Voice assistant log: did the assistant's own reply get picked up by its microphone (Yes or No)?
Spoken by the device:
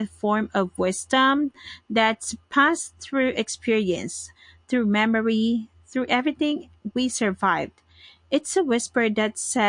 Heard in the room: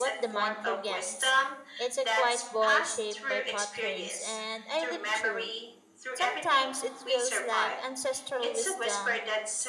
Yes